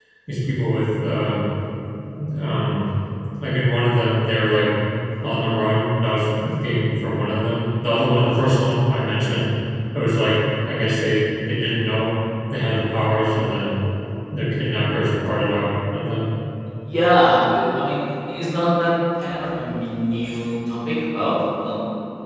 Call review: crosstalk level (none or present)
none